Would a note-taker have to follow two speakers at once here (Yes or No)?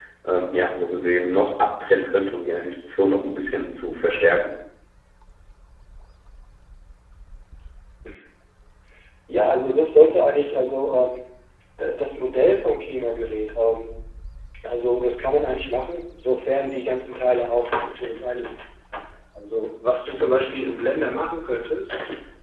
No